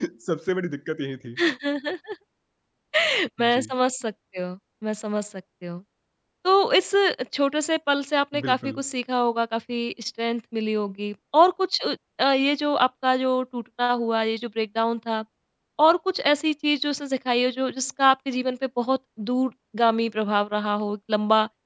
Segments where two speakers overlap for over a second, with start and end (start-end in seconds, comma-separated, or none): none